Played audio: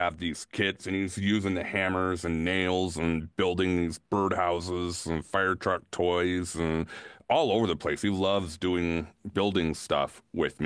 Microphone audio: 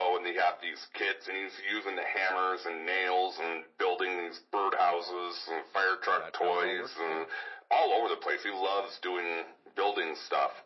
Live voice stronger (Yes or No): No